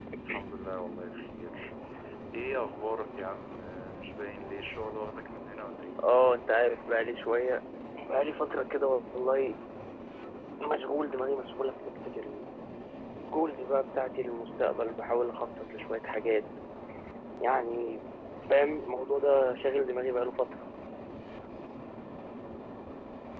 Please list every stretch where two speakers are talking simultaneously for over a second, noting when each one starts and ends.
none

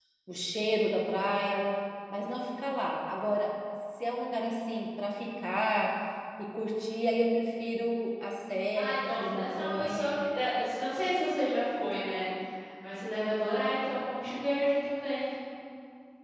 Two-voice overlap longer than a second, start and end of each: 8.7-10.1

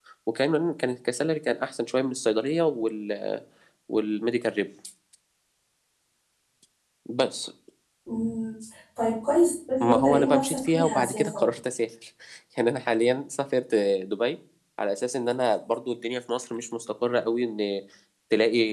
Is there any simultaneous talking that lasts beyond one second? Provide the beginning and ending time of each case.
9.8-11.4

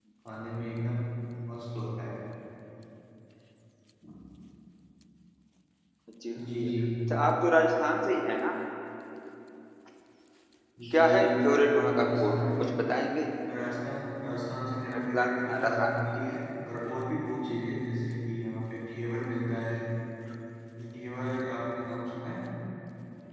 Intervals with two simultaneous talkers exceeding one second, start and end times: 10.9-12.7, 14.9-16.4

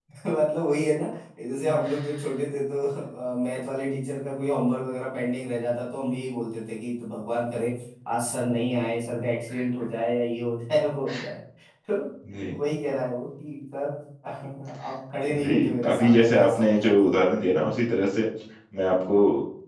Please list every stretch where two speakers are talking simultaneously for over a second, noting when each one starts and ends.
15.3-17.1

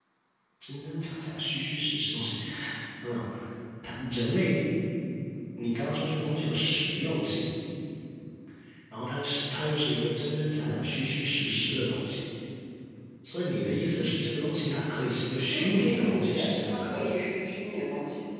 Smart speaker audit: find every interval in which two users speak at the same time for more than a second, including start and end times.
15.5-16.9

